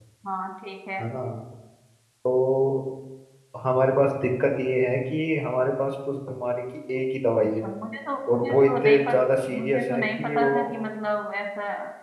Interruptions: present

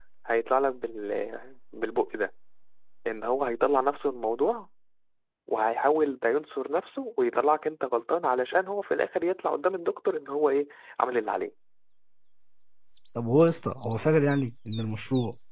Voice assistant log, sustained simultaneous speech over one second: none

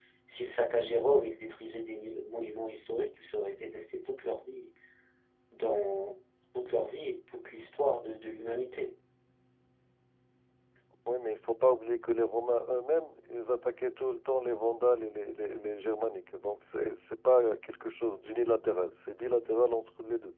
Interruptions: none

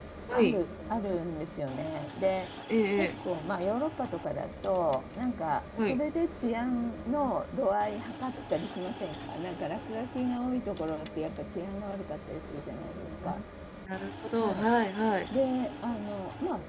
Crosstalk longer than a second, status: none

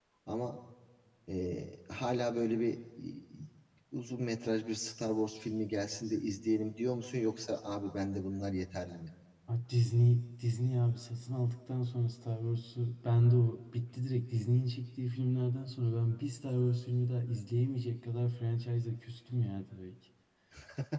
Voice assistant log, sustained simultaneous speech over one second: none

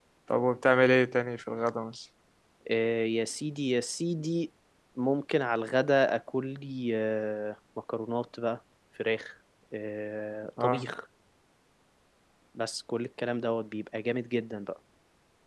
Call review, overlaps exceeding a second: none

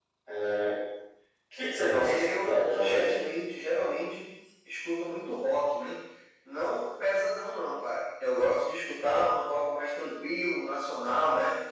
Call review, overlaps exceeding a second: present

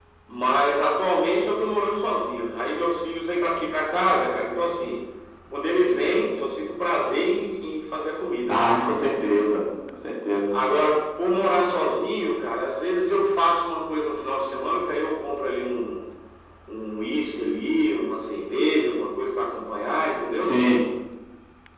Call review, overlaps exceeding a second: none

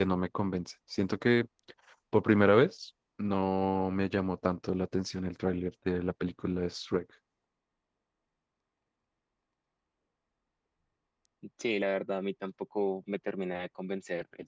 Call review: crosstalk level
none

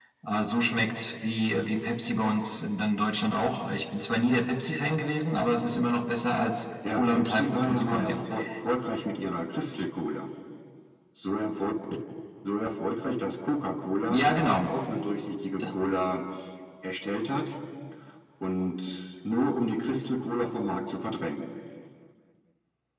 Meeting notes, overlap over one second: present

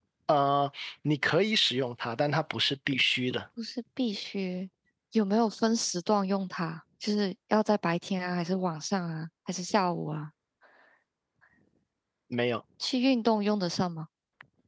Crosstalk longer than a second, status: none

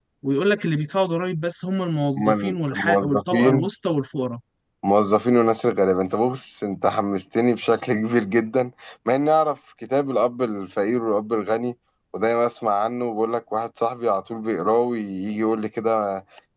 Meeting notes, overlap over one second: present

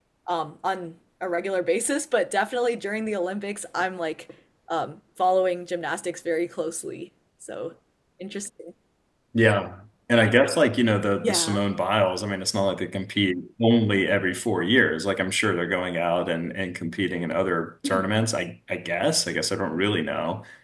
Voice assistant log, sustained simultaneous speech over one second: none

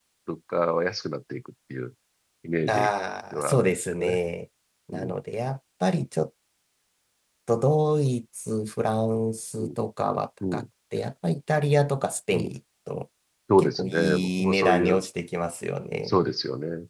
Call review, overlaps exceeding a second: present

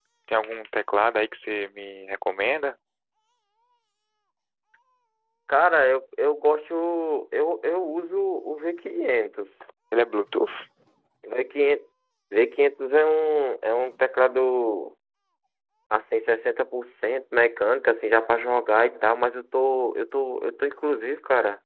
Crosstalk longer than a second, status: none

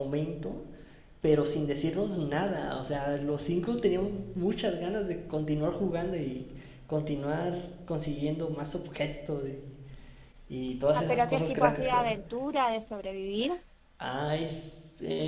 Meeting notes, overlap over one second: present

